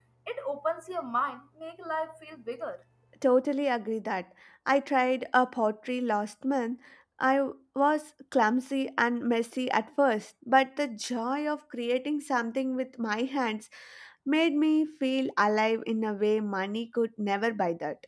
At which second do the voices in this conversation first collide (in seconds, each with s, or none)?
none